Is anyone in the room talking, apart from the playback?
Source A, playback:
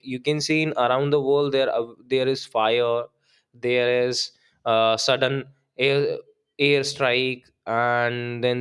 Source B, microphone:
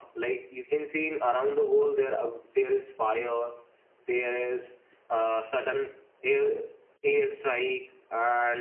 No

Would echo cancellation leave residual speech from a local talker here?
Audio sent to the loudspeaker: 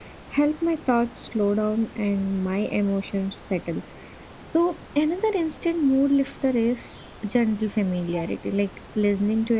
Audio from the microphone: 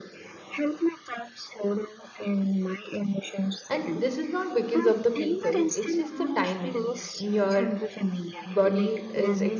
Yes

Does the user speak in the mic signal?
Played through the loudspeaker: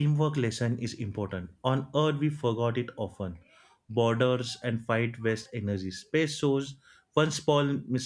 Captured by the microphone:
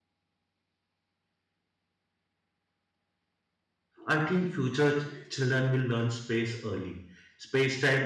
Yes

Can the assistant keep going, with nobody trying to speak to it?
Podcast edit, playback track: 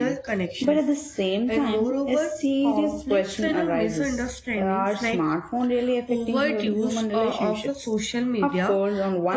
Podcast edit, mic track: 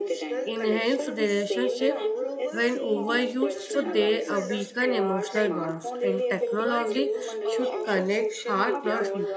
No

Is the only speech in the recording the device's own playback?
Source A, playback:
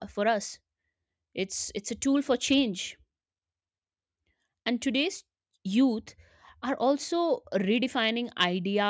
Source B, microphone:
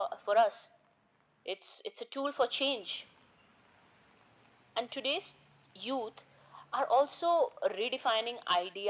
Yes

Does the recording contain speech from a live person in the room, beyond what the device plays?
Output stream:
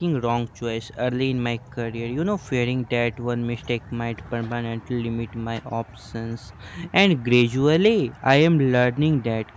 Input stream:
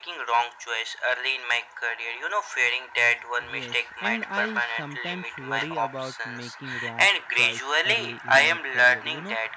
Yes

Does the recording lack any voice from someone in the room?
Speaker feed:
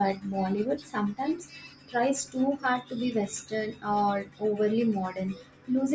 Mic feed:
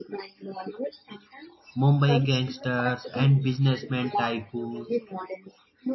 No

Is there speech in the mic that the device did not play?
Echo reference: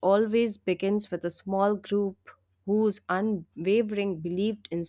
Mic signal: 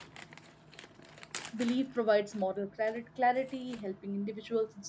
Yes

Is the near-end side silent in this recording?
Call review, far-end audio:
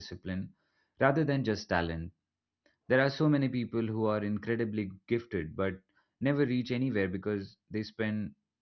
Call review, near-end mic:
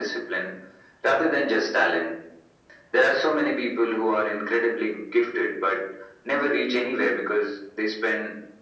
Yes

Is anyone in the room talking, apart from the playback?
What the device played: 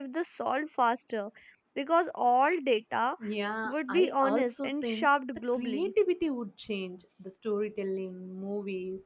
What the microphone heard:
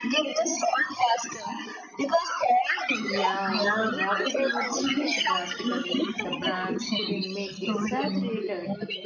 Yes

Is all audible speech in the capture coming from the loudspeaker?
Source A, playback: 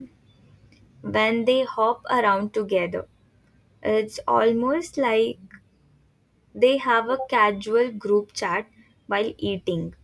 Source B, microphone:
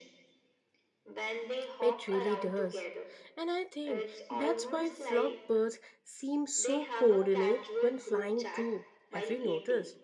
No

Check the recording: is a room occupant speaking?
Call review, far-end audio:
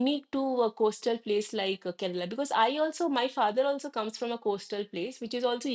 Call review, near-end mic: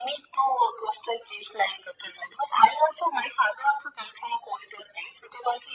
No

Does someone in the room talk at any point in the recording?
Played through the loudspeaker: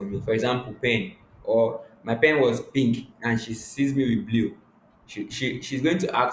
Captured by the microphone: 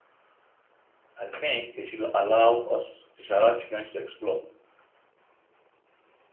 Yes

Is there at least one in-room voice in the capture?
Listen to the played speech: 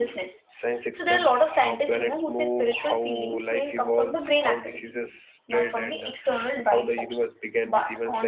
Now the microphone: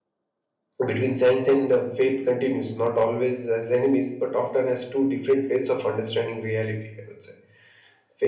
Yes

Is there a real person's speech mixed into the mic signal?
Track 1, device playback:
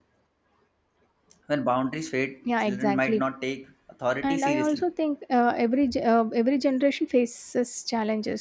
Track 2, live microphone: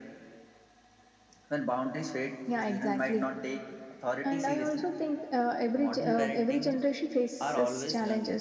Yes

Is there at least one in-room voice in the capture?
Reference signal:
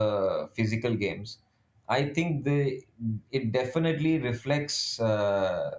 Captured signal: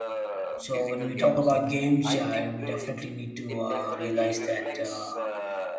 Yes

